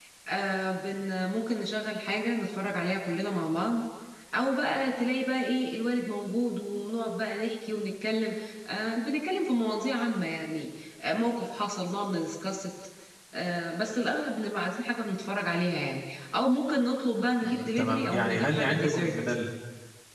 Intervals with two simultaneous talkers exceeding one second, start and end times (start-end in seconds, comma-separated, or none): 17.4-19.1